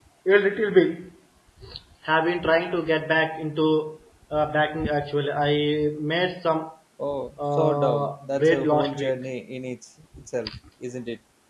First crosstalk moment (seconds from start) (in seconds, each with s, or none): 7.5 s